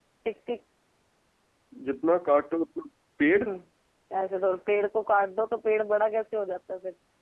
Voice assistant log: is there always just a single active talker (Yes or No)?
Yes